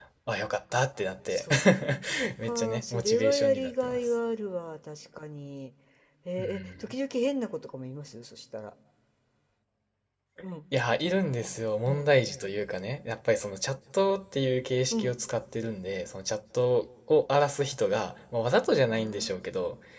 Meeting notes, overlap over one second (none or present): present